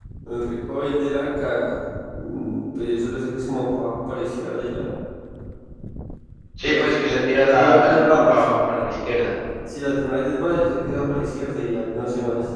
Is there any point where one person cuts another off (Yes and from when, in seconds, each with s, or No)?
Yes, from 6.7 s